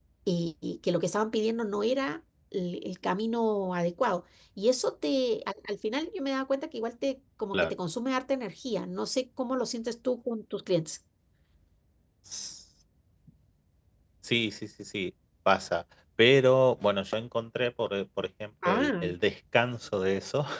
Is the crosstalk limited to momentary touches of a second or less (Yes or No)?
Yes